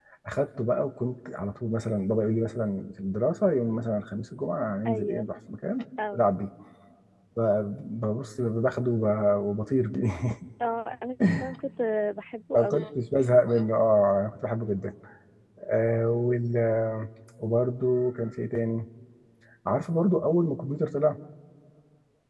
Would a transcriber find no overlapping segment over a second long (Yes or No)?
Yes